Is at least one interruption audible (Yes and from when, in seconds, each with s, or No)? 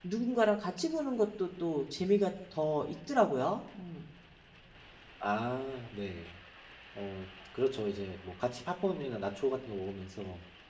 No